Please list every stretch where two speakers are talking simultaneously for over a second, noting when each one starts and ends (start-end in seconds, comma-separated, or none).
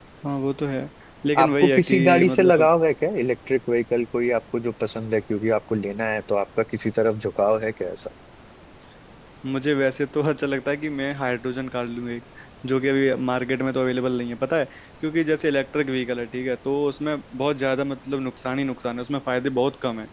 1.4-2.7